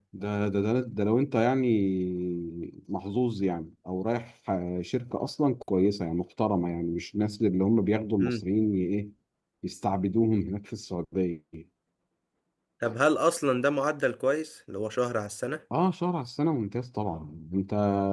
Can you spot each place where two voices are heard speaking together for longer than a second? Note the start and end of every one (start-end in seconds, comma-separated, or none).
none